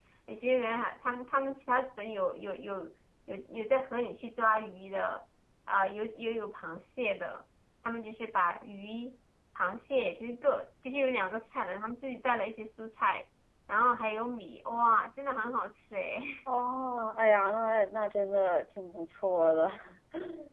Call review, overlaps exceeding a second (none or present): none